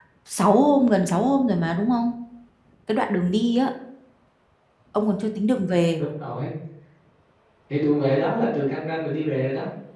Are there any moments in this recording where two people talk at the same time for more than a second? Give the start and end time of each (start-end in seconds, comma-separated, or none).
none